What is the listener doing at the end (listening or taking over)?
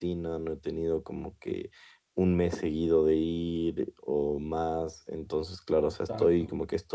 listening